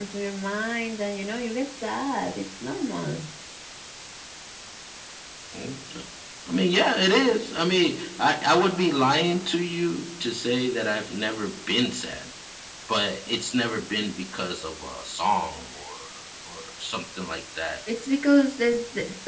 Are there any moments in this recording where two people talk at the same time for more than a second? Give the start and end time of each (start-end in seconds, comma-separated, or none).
none